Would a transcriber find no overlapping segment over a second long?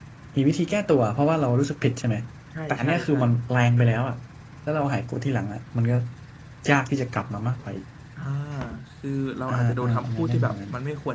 No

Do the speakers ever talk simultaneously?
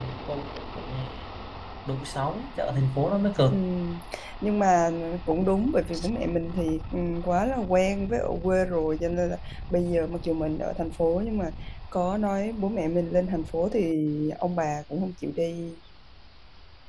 No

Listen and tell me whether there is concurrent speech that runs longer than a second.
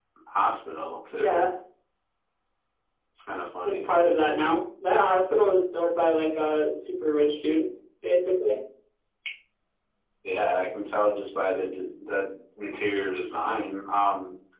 No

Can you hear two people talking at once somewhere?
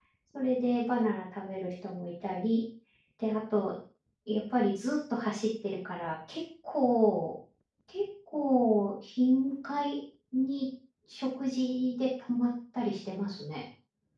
No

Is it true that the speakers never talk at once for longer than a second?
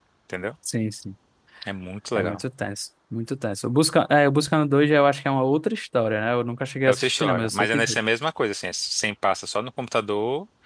No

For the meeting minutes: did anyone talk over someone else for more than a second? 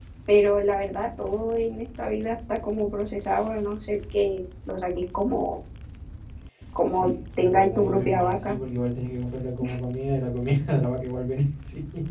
Yes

